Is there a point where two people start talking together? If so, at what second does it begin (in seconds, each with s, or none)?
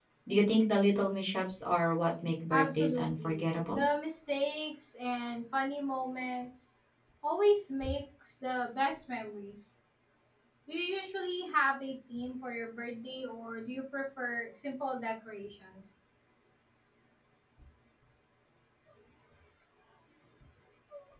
2.5 s